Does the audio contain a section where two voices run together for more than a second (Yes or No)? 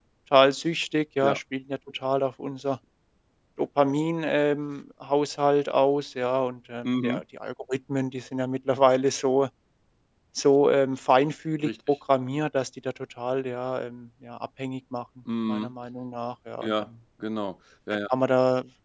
No